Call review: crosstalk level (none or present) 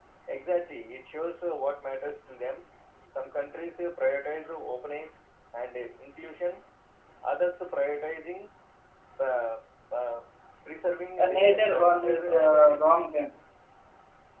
present